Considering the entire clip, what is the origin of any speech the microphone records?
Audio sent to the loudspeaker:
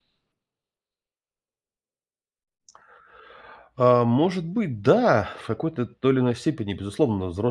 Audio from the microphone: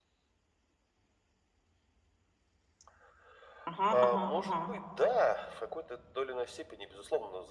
both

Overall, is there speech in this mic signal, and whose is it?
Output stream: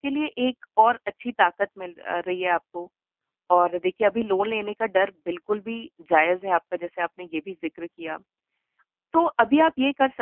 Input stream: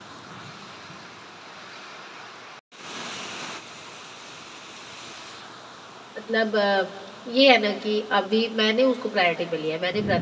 user only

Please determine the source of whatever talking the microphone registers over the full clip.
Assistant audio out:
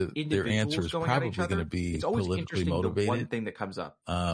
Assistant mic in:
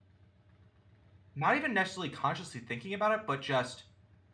user only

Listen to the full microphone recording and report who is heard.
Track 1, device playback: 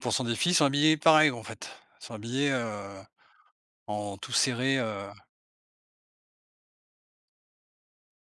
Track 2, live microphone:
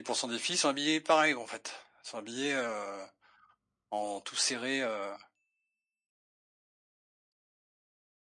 echo only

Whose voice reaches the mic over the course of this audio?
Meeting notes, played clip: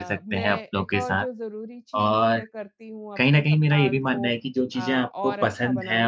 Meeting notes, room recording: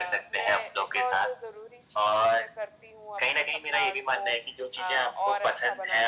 echo only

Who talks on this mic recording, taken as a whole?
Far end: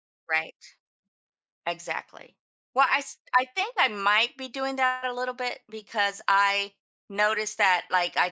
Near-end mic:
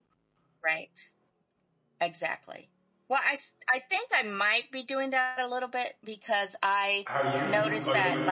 both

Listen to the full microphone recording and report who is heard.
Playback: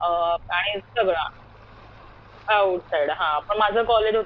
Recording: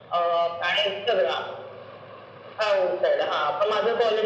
echo only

